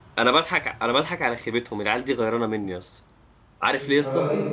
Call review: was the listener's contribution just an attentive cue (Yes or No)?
Yes